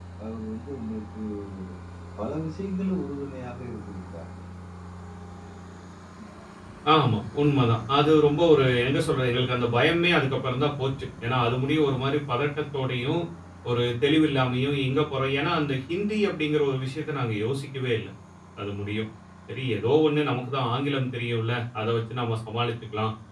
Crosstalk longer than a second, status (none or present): none